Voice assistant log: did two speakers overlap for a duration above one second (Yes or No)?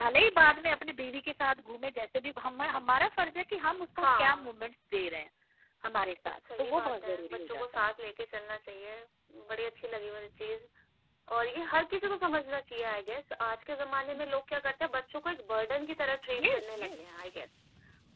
Yes